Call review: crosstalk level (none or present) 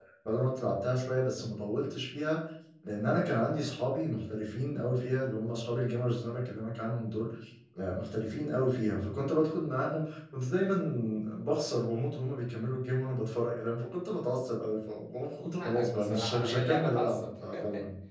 present